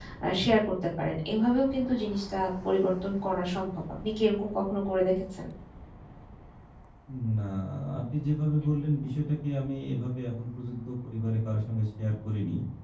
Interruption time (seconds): none

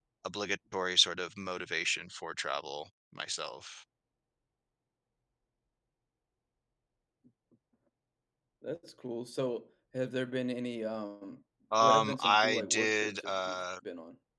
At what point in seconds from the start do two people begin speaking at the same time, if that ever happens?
11.7 s

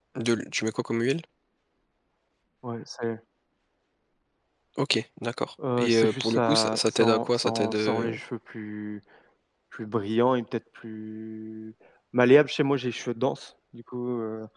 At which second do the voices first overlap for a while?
5.6 s

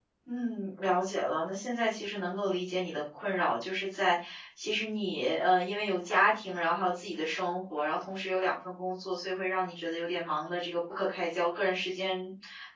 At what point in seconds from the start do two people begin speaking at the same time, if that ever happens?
none

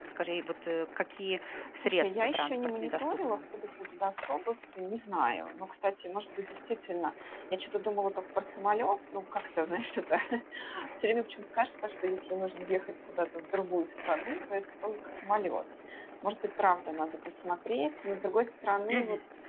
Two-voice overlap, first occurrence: 1.8 s

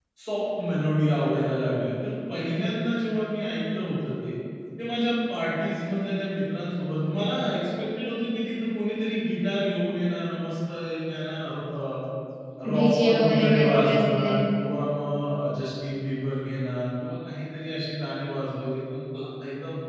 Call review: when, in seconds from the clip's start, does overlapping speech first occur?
12.8 s

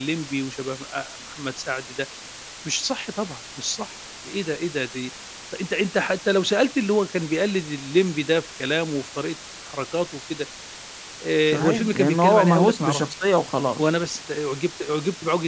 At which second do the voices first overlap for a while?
11.5 s

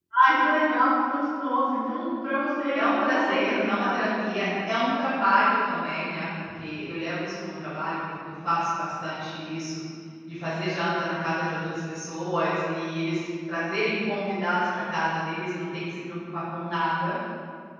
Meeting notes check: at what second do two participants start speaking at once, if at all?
2.7 s

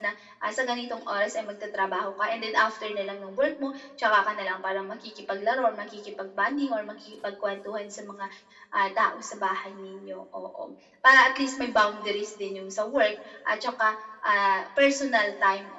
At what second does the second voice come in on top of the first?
none

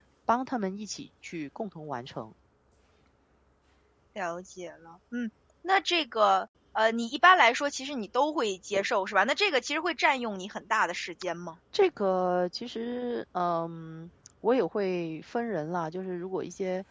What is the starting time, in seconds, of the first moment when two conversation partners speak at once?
none

